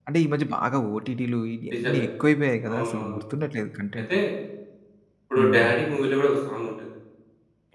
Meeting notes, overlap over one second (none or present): none